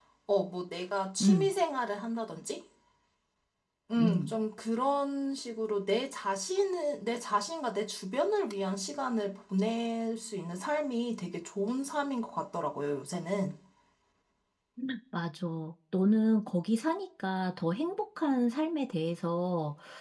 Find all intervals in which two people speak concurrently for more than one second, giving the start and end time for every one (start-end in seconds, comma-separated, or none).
none